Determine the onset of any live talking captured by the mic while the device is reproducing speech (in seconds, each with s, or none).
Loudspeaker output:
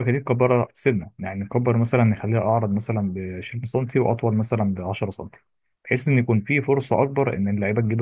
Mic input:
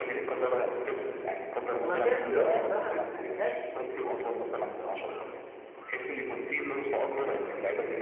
1.8 s